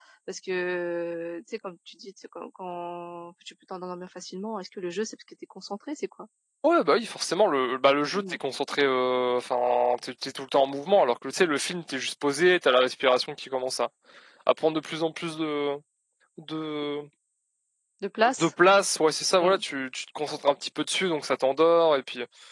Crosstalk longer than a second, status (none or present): none